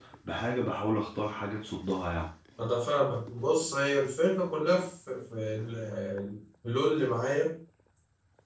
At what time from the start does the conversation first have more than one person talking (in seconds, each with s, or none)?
none